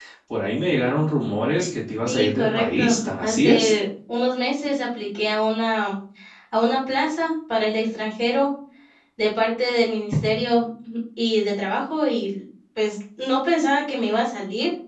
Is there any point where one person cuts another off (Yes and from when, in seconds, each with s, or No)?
Yes, from 2.0 s